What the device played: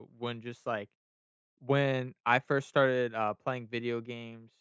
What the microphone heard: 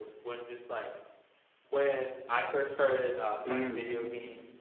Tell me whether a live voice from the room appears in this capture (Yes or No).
Yes